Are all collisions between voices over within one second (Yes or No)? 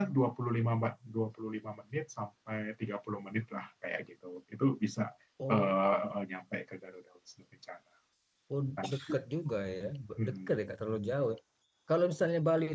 Yes